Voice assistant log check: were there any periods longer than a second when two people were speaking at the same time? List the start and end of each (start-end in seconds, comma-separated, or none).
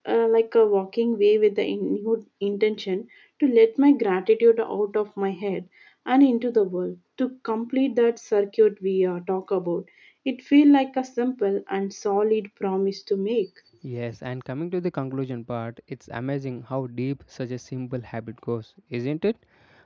none